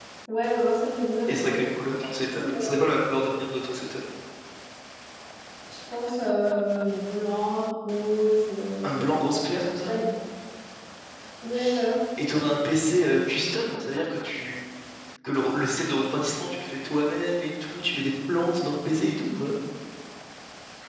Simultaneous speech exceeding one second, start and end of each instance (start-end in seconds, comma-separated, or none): none